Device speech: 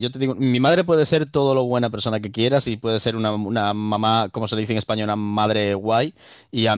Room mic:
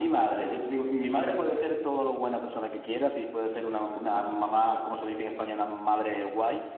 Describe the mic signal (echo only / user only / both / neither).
echo only